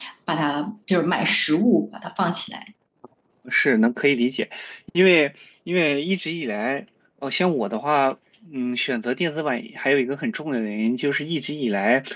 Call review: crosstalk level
none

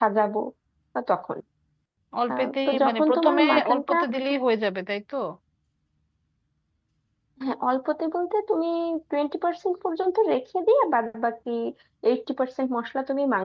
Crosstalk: present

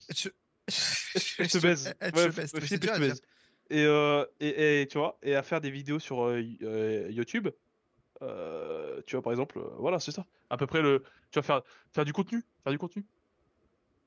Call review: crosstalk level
present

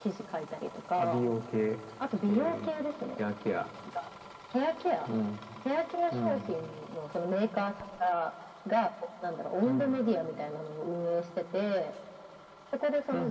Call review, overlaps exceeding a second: none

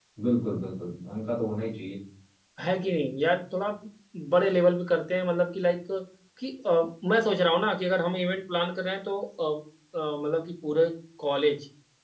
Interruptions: none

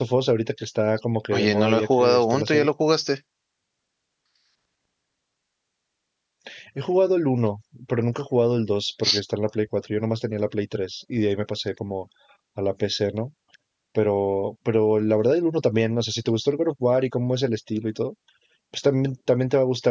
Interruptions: present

